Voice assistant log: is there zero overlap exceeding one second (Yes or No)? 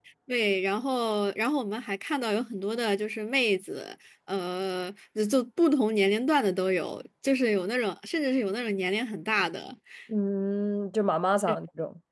Yes